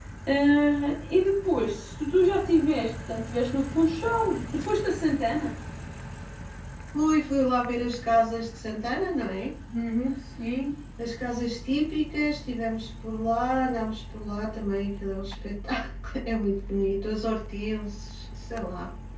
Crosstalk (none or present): none